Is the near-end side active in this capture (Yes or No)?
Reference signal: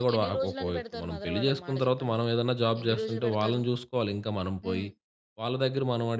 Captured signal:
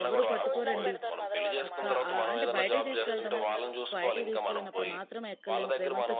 Yes